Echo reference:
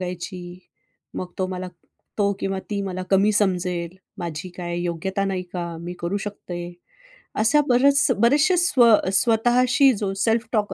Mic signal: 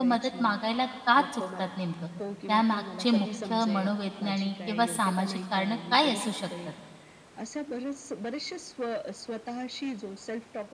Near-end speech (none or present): present